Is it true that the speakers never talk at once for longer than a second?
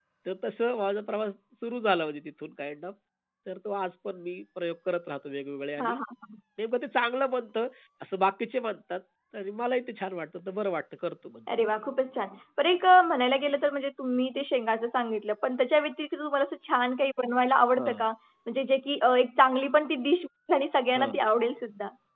Yes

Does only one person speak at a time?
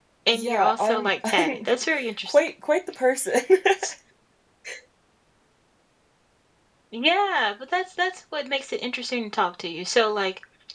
No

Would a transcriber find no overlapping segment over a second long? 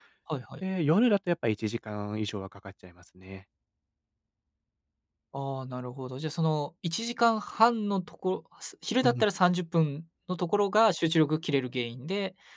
Yes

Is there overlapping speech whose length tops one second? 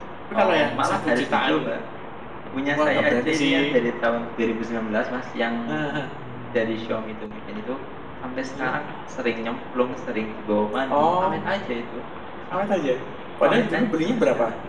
Yes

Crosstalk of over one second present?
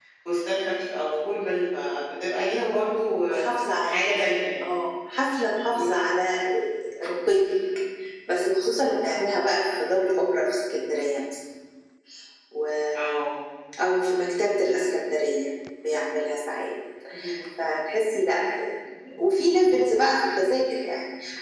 No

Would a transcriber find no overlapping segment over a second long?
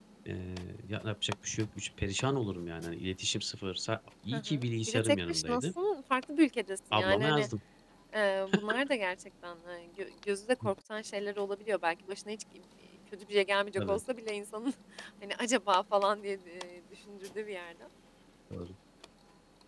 No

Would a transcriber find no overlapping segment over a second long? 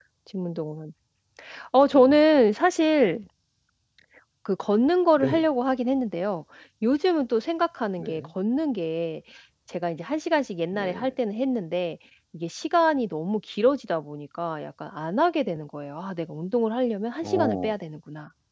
Yes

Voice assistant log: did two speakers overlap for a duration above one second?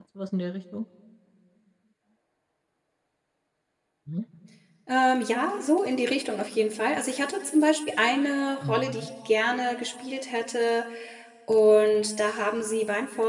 No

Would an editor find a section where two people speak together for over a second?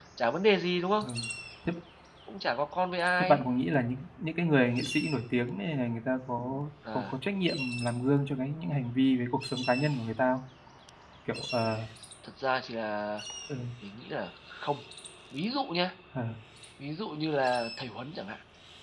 No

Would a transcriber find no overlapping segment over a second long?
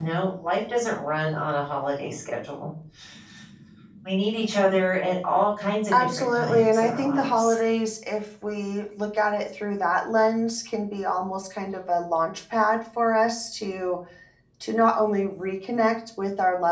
No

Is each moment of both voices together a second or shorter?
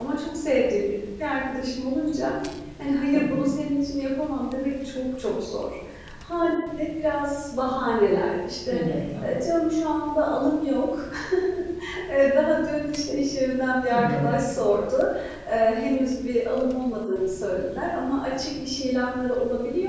Yes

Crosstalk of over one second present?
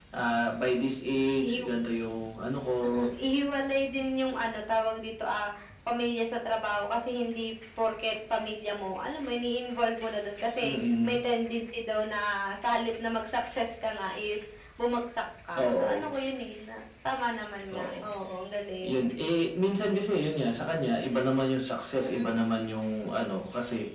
No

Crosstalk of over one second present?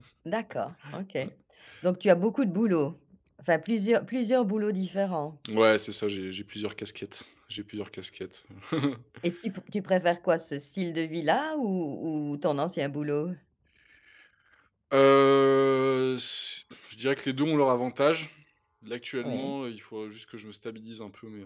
No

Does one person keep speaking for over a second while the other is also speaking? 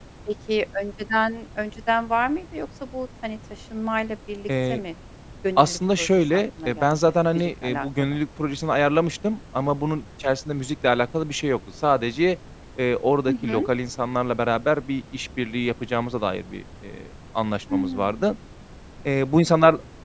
Yes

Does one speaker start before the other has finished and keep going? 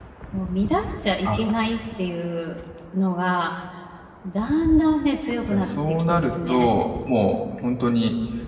Yes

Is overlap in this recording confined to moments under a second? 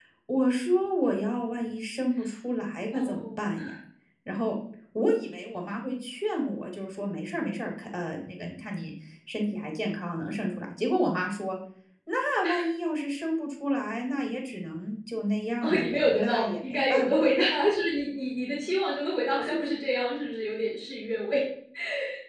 No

